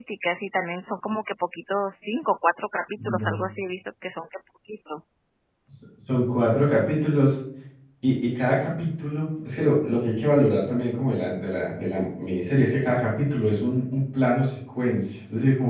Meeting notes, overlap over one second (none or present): none